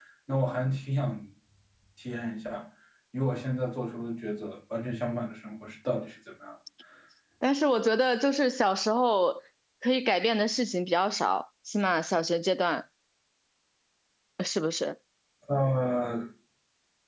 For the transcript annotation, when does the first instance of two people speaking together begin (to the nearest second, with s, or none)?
none